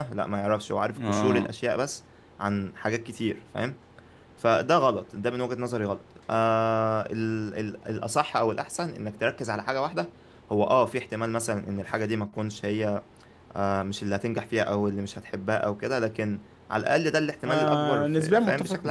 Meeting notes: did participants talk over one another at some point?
Yes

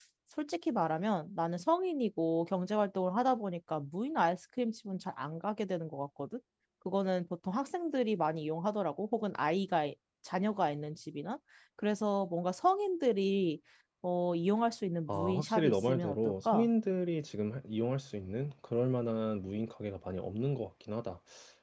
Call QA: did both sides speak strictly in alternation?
No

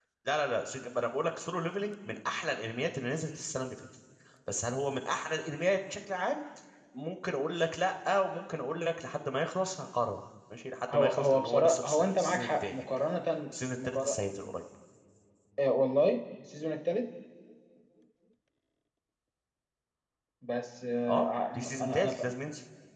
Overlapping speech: Yes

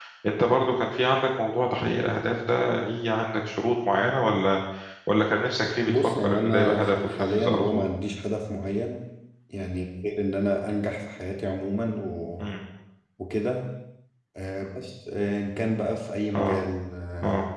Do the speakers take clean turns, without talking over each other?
No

